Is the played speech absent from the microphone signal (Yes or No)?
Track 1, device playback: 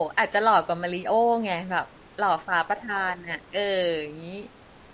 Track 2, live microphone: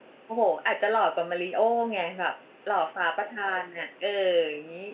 No